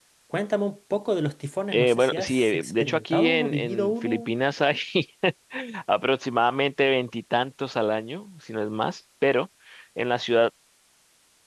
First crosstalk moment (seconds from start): 1.7 s

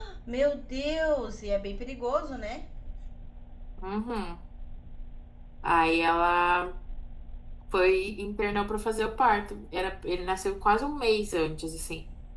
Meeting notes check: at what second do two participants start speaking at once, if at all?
none

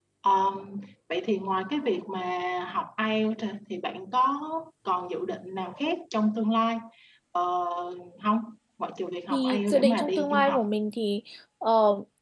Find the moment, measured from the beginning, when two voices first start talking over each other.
9.3 s

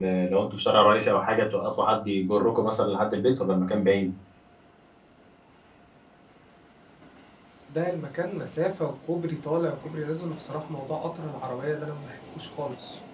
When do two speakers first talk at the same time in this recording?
none

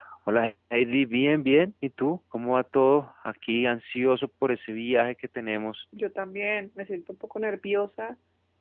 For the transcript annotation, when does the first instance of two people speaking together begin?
none

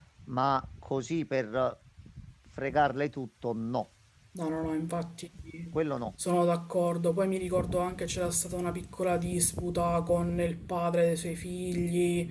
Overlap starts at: none

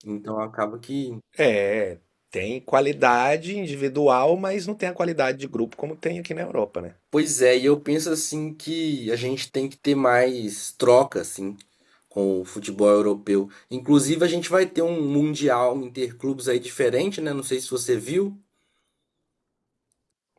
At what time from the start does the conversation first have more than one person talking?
none

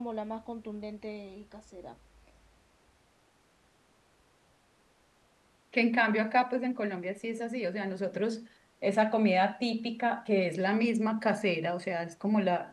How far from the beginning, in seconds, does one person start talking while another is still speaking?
none

